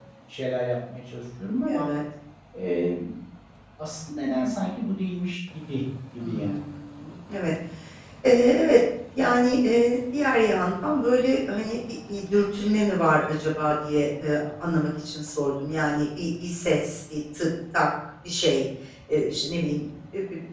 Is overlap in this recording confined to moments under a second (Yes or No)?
Yes